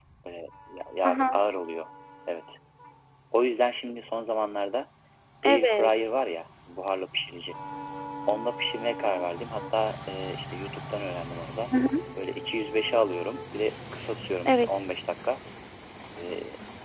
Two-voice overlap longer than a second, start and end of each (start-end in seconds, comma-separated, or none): none